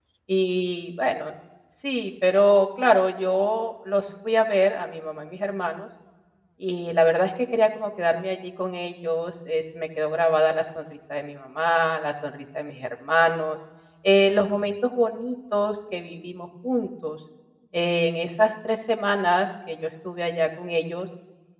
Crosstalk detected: No

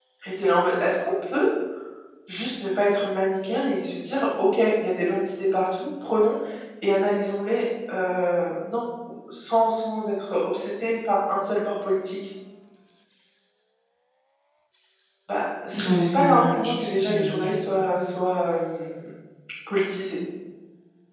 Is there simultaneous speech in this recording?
Yes, from 15.7 s

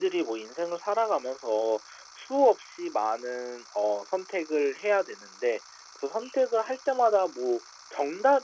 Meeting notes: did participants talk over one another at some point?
No

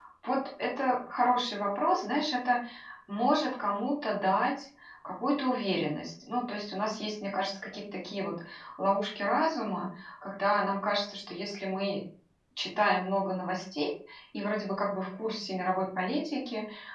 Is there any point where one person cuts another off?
No

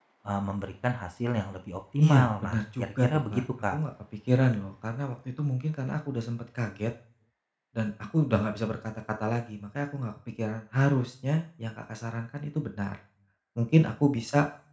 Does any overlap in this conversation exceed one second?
Yes, from 2.0 s

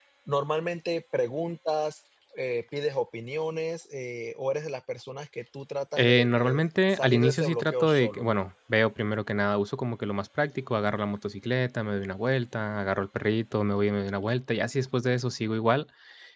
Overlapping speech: Yes, from 6.0 s

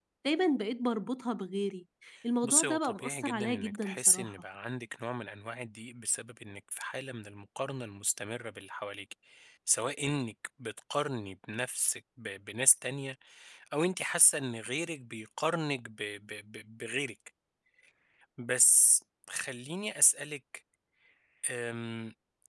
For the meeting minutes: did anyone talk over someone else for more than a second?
Yes, from 2.4 s

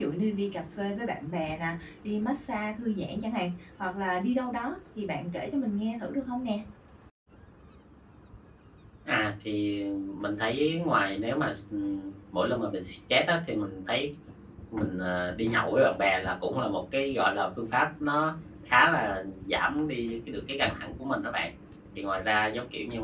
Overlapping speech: No

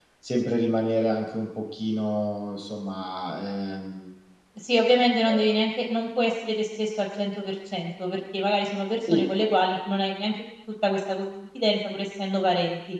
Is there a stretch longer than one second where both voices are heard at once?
No

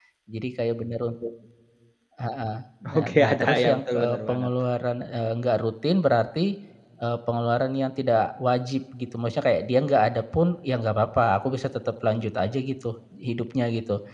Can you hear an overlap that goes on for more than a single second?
Yes, from 3.0 s

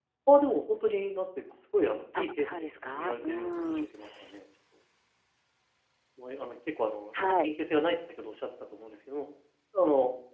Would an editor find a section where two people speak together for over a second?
Yes, from 2.2 s

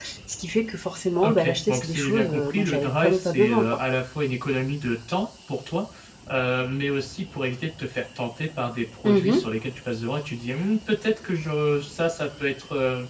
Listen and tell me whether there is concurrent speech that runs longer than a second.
Yes, from 1.2 s

